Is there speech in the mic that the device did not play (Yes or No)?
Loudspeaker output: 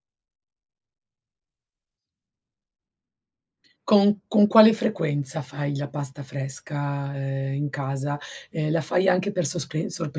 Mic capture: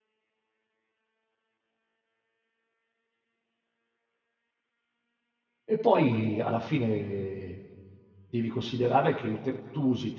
Yes